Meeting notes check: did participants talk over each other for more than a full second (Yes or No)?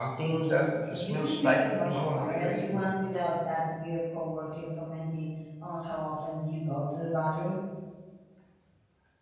Yes